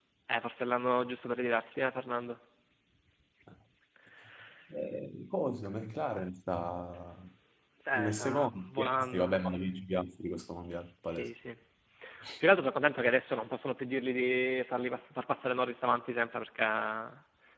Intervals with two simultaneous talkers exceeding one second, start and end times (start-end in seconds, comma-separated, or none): 7.9-9.3